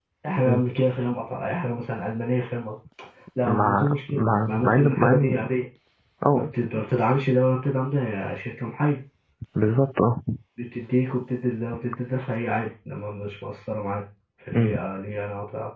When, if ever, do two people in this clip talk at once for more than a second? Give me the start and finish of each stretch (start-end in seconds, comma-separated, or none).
3.4-5.4